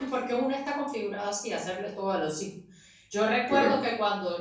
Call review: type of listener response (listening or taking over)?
listening